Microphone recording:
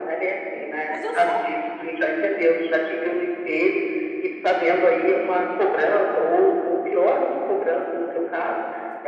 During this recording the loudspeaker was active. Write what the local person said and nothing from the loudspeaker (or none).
Mas eu sou,